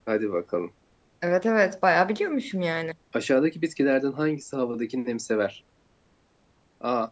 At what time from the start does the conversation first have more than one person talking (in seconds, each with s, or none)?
none